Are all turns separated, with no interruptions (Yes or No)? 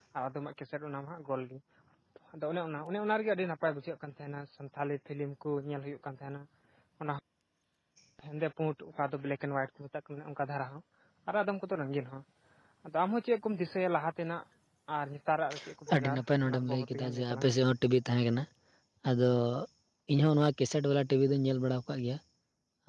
No